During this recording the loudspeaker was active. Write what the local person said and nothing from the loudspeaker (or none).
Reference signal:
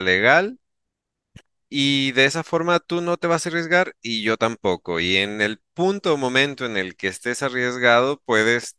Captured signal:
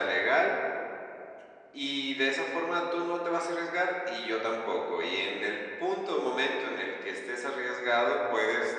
none